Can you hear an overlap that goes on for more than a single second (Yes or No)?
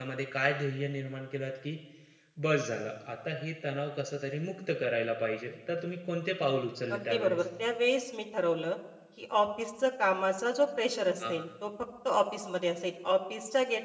No